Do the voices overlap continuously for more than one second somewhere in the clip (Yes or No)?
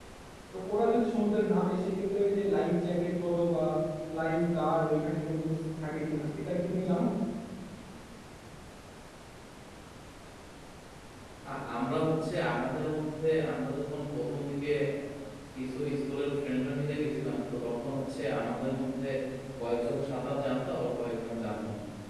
No